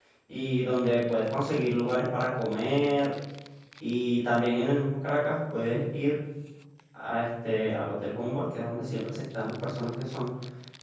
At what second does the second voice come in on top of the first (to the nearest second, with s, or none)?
none